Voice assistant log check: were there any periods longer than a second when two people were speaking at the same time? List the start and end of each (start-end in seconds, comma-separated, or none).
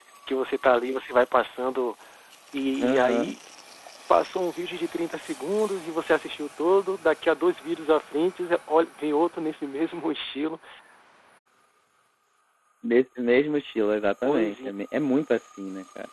none